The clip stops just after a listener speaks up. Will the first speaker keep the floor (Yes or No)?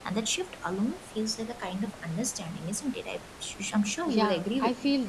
No